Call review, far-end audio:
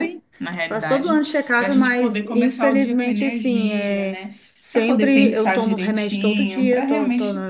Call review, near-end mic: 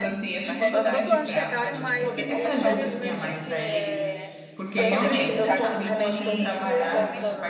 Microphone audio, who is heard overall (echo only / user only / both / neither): both